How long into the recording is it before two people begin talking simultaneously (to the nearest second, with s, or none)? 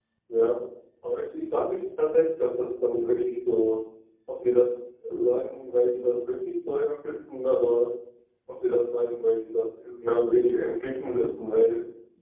none